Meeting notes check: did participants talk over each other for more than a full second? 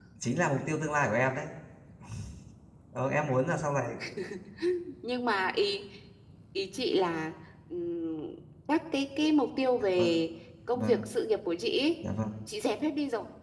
No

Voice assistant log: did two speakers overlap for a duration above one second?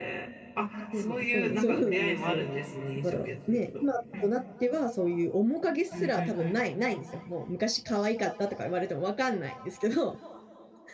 Yes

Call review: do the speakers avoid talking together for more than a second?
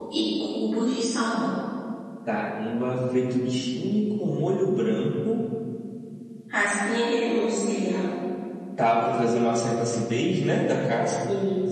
Yes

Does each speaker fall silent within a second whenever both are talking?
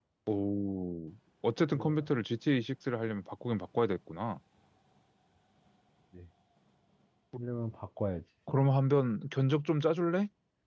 Yes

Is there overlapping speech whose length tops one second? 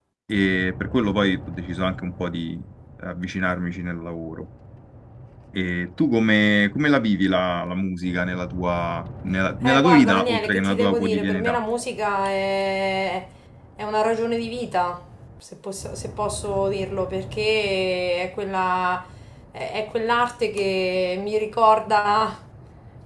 Yes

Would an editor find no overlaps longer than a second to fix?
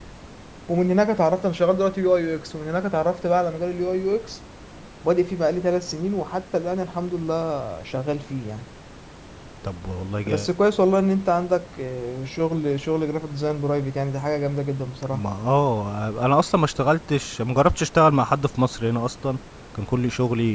Yes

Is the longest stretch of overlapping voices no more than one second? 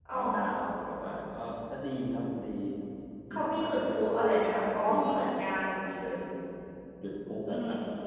No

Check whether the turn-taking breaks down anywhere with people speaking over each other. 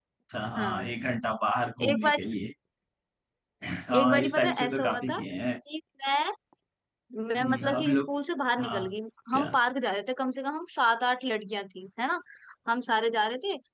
Yes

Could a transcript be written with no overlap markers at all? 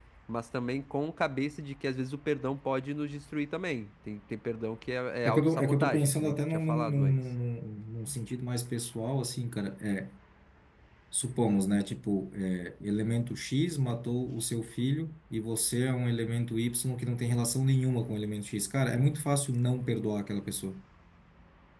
No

